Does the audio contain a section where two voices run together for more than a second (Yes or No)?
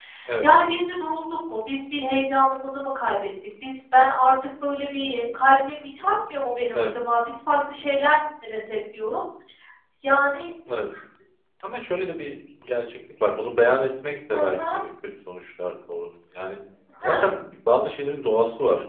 No